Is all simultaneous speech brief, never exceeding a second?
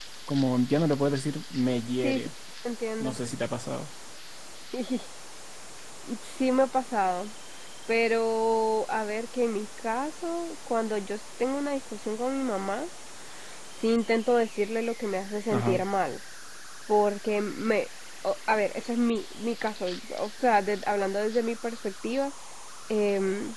Yes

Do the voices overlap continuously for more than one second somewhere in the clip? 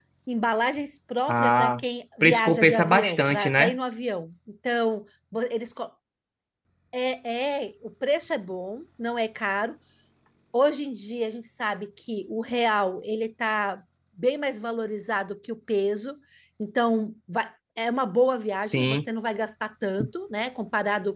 Yes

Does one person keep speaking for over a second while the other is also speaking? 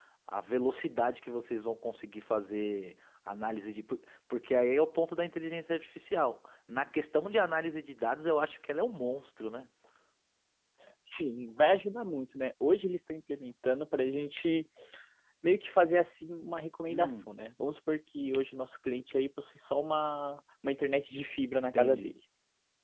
No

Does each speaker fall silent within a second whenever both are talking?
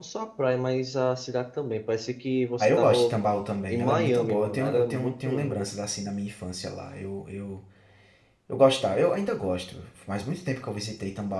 No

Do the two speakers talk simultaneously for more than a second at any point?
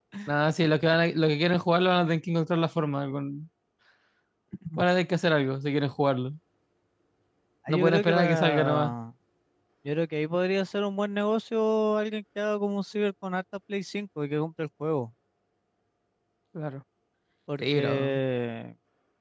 Yes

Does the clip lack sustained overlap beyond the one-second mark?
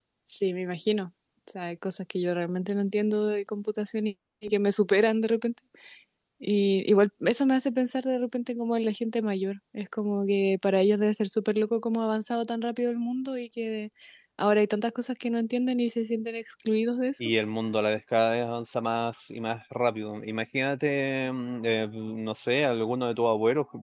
Yes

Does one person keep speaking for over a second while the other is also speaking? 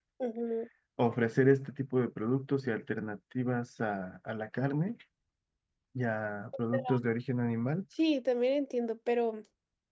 No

